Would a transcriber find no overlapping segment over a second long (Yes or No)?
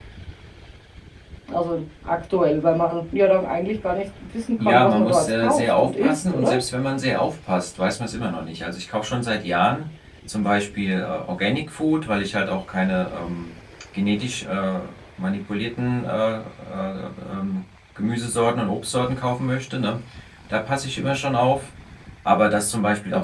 No